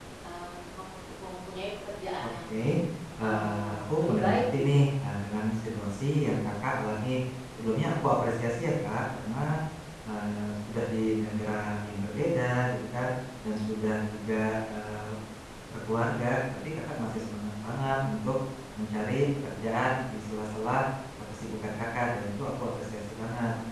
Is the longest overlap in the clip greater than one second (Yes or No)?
Yes